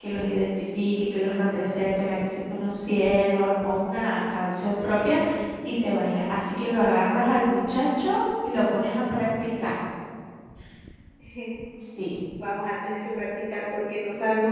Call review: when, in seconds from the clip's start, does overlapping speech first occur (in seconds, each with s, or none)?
none